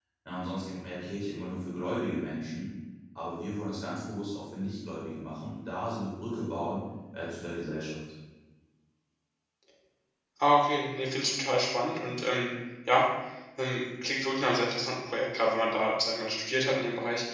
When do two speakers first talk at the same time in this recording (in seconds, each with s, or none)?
none